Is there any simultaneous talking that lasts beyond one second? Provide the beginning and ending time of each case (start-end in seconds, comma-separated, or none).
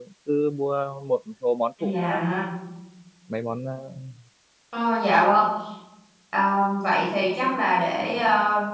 none